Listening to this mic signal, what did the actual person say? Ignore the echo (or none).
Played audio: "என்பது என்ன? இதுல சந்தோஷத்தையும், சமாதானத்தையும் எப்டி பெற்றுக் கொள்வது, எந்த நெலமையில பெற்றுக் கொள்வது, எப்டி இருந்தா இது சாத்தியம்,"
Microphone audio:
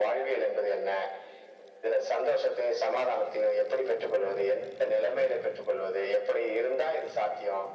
none